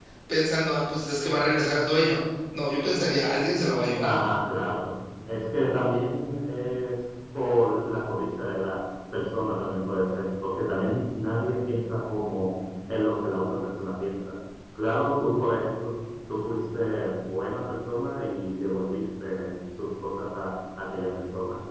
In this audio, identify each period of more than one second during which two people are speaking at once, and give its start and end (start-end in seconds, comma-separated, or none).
none